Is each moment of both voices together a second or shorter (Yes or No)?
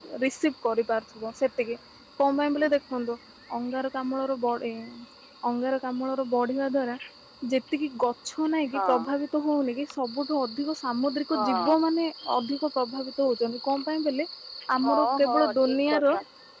No